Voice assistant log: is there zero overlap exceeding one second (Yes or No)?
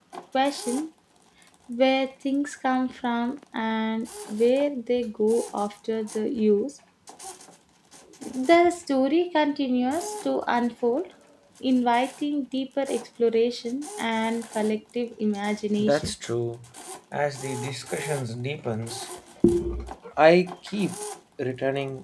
Yes